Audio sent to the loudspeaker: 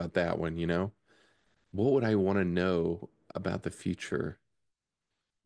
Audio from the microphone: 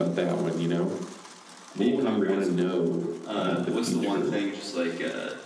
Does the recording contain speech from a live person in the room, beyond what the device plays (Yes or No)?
Yes